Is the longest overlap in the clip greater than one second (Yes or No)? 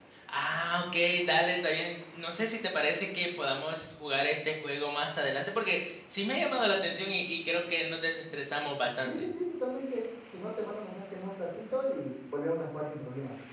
No